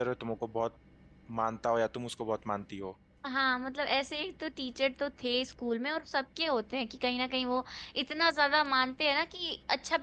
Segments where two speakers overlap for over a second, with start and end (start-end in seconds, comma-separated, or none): none